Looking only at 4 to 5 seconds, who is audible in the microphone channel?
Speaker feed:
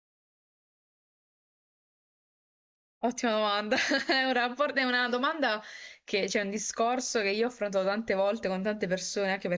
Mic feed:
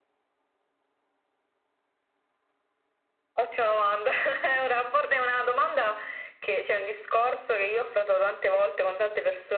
echo only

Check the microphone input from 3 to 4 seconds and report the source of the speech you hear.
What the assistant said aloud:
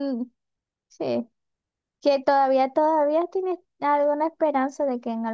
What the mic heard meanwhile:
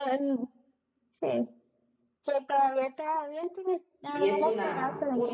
echo only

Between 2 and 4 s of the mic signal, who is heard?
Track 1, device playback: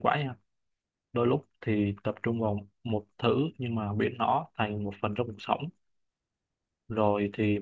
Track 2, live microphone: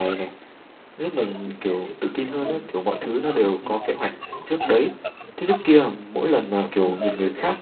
both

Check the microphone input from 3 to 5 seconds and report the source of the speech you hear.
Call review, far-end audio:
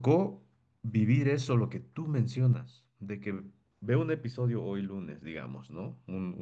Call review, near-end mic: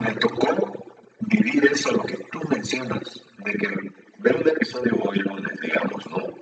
echo only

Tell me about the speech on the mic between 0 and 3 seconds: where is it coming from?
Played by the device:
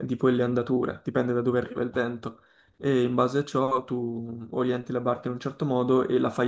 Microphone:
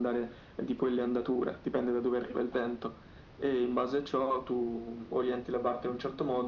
echo only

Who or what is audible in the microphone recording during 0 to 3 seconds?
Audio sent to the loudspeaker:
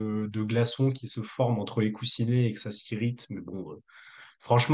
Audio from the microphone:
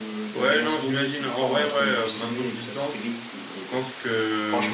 both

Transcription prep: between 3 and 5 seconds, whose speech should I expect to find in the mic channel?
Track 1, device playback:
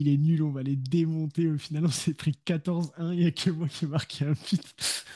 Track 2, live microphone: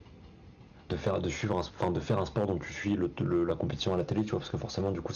user only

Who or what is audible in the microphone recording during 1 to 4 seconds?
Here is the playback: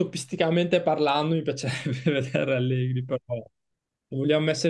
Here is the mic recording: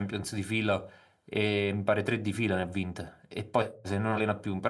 user only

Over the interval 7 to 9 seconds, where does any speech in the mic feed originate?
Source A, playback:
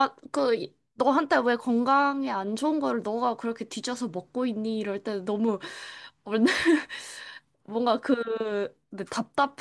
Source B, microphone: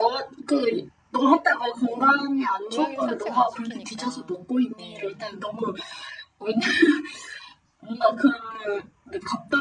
echo only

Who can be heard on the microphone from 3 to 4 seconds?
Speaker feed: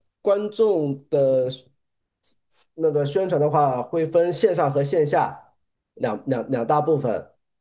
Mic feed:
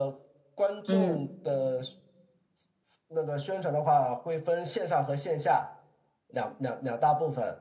echo only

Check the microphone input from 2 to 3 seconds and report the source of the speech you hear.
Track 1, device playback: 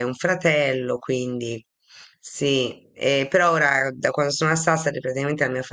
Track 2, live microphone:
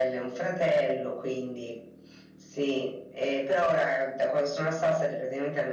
echo only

